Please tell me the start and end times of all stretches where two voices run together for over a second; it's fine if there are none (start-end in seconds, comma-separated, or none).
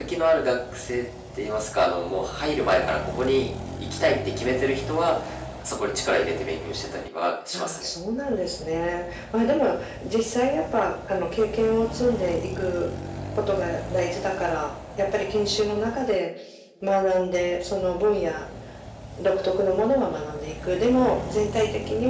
none